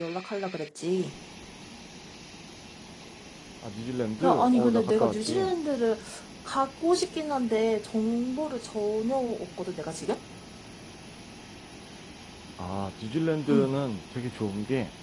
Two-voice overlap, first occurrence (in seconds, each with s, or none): 4.2 s